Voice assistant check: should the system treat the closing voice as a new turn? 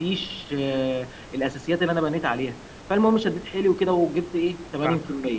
No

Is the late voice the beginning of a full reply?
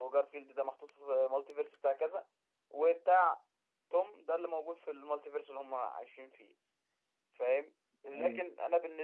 No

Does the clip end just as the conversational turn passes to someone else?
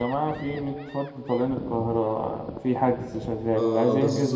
Yes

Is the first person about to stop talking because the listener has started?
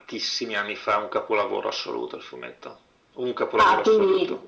Yes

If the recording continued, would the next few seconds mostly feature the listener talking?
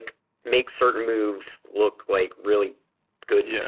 No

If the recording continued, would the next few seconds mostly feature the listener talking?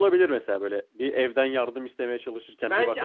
Yes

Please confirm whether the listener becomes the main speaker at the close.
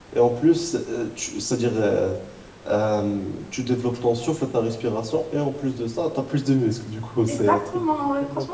Yes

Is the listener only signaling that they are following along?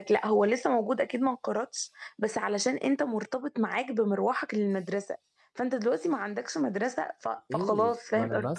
No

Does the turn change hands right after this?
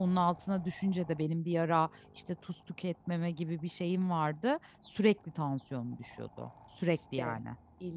Yes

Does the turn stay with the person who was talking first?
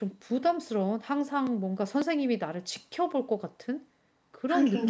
No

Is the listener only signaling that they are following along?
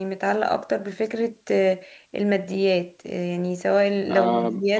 Yes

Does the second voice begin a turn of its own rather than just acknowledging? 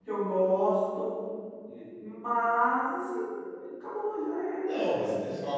Yes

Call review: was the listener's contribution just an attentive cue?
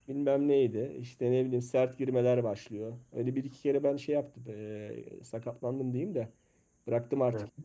Yes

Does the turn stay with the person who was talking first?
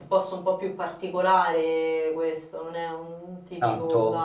No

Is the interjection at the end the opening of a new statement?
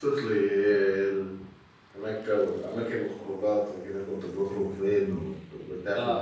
Yes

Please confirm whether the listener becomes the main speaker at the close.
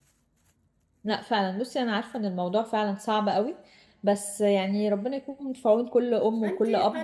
Yes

